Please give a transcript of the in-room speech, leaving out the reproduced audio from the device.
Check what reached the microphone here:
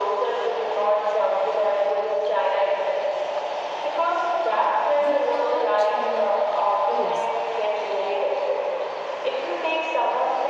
We touch on the yes,

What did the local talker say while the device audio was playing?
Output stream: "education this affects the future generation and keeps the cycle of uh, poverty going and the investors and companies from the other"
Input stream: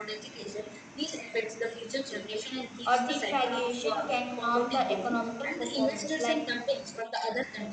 or deflation can harm the economical performance. Like

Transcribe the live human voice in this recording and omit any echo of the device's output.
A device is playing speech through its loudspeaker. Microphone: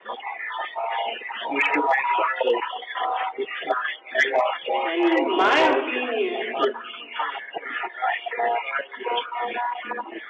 In my opinion,

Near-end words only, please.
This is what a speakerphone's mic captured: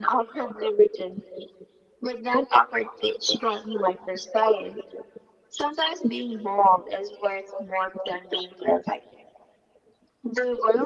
none

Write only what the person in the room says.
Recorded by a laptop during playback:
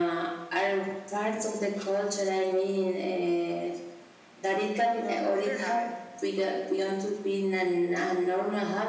you know, because they're not.

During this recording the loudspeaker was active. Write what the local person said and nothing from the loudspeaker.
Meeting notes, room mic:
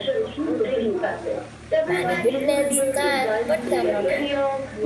Many witness that but cannot help.

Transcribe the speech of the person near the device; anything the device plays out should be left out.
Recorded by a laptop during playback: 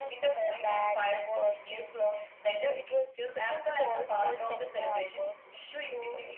none

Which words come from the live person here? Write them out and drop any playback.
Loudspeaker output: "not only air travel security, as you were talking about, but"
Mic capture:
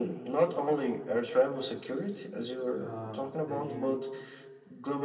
um that you

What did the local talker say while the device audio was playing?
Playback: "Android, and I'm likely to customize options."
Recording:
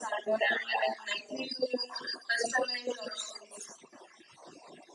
none

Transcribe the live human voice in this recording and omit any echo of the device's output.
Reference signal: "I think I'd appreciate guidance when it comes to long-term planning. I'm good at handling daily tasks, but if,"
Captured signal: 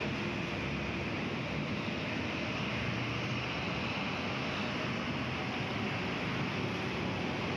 none

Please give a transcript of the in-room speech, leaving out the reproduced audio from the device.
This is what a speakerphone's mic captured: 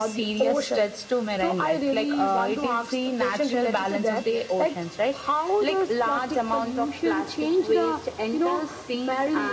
none

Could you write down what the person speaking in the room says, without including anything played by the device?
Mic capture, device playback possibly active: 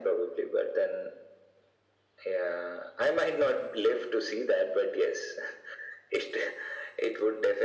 none

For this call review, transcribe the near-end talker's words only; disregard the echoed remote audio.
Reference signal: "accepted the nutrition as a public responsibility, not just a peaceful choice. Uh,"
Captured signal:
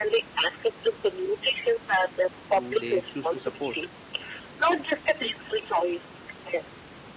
who they choose to support.

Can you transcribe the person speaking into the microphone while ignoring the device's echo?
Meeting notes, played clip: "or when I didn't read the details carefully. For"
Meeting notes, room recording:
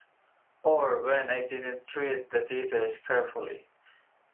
none

